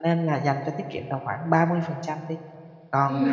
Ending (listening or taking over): listening